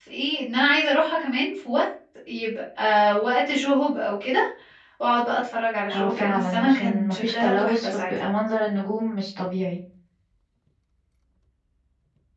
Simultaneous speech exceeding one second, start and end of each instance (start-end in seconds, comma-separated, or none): 5.9-8.2